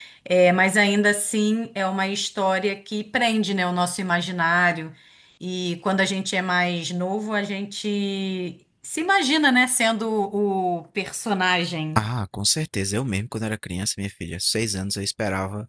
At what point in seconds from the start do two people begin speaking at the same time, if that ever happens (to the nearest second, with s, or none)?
none